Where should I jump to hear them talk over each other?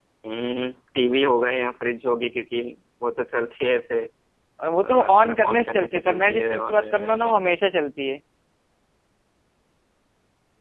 5 s

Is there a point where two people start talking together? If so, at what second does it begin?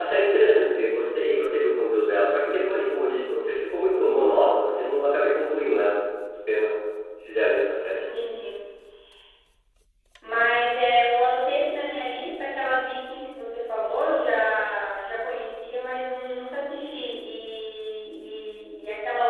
none

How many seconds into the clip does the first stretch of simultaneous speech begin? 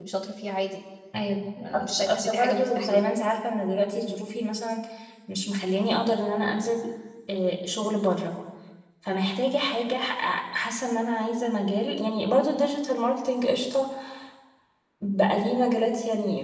2 s

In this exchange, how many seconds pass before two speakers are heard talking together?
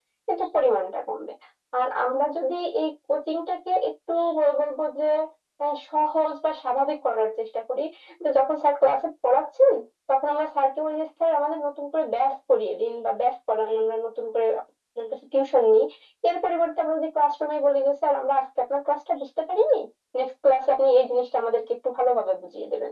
none

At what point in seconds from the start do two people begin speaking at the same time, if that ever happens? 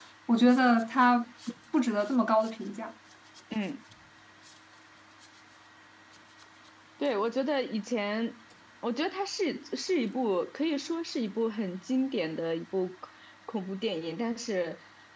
none

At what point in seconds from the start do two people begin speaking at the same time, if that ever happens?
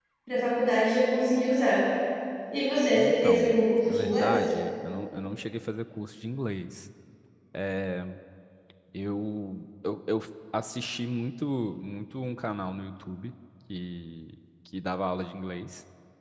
3 s

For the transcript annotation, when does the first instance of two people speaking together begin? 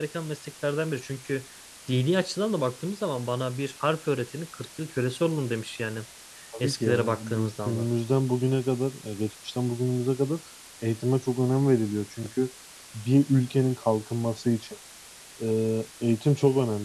7 s

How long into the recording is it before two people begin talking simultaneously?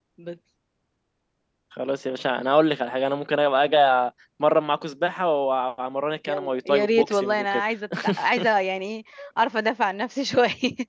6 s

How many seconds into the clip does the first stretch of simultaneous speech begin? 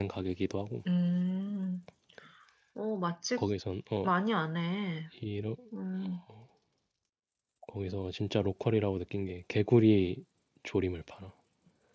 none

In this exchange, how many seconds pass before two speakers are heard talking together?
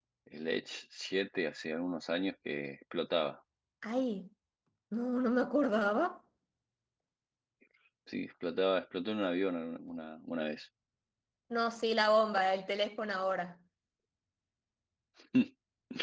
none

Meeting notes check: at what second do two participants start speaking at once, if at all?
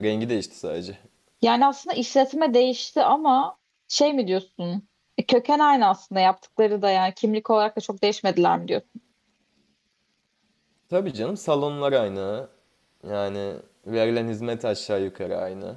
none

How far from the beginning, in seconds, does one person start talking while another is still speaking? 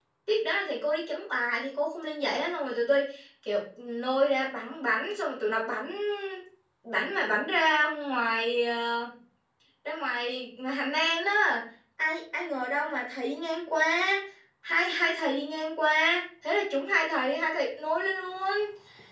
none

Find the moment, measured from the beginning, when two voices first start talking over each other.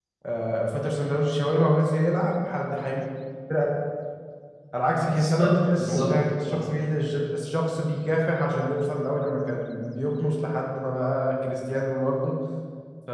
5 s

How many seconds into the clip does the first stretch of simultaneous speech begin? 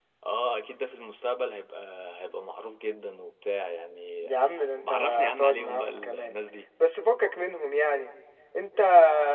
5 s

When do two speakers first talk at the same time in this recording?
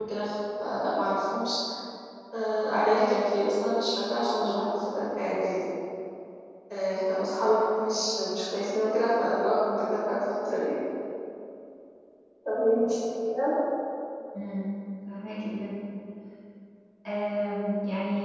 none

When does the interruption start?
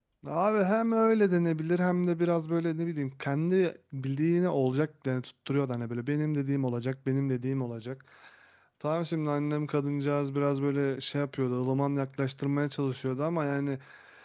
none

